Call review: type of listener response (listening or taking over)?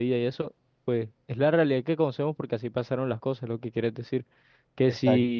listening